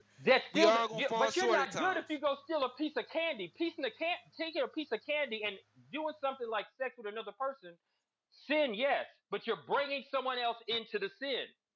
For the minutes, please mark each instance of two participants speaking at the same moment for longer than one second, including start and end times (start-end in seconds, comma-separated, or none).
0.5-2.0